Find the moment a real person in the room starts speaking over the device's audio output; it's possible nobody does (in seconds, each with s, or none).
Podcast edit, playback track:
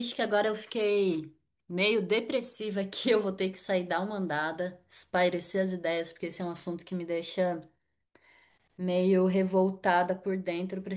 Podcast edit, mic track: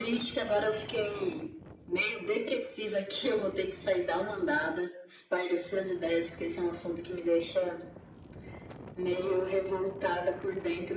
none